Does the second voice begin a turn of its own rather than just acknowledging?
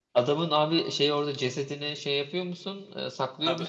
Yes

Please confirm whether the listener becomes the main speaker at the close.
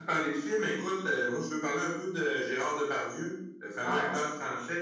No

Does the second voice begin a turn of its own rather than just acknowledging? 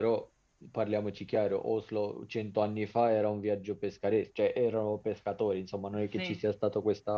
No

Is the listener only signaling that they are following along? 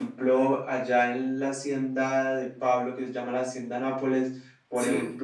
Yes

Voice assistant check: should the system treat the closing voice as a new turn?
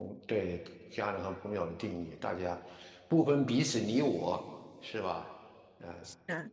Yes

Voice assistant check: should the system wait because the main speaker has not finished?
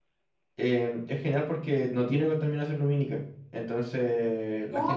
No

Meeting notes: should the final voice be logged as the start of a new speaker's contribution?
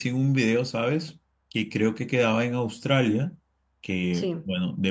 No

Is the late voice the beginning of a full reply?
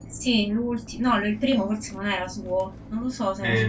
Yes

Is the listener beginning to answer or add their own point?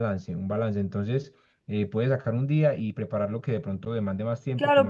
Yes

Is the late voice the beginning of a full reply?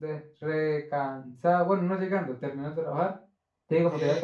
No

